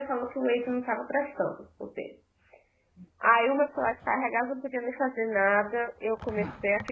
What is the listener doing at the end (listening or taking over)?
listening